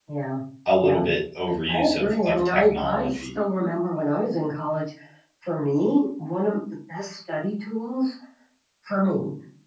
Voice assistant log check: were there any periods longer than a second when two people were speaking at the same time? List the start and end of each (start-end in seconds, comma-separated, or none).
1.7-3.3